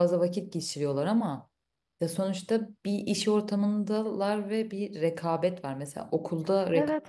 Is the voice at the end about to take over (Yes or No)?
No